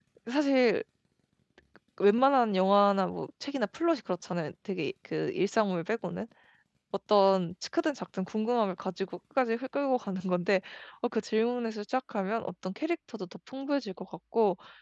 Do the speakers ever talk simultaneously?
No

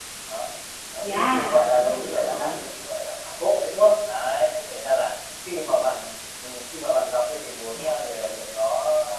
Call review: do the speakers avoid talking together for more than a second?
No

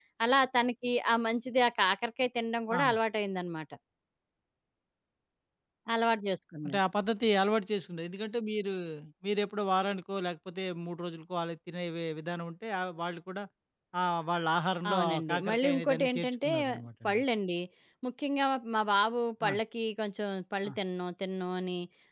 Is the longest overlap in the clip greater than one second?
Yes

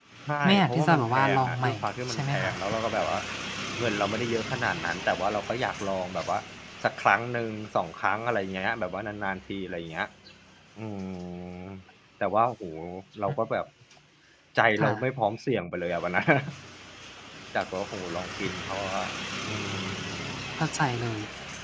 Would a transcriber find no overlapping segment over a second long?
No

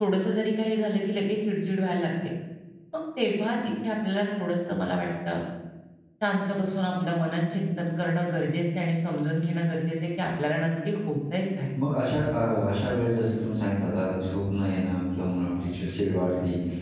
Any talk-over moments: No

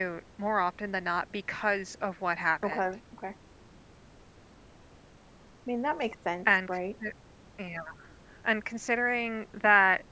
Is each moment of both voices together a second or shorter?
Yes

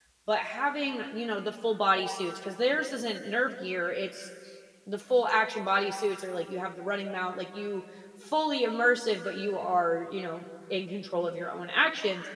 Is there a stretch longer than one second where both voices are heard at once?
No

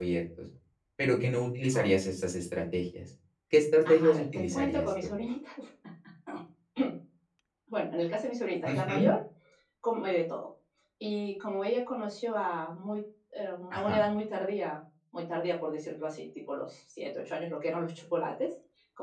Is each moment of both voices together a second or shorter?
No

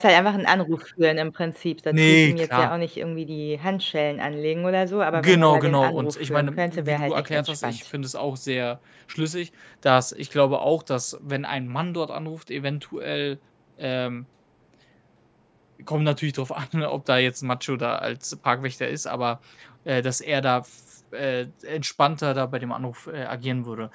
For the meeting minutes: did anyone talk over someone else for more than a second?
Yes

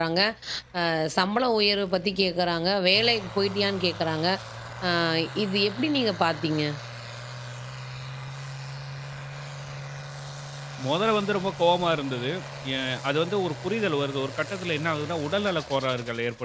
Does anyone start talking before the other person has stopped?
No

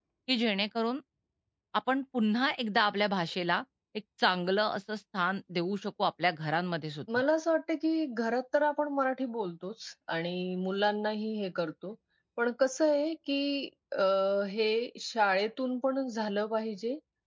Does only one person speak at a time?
Yes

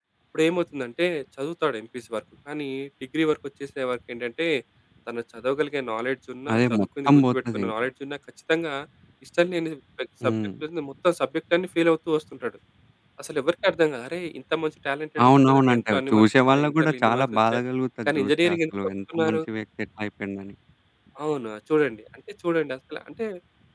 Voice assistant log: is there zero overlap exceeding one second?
No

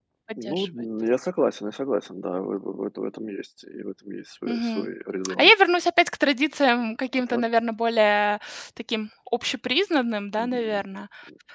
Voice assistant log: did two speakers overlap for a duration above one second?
No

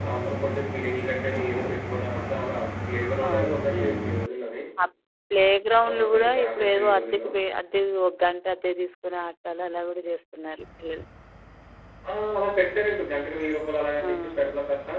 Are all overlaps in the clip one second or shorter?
No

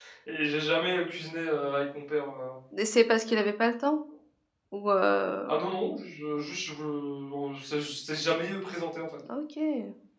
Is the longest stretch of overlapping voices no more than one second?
Yes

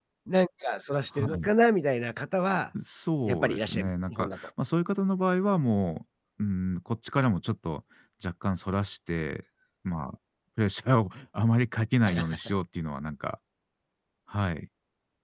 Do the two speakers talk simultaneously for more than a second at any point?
Yes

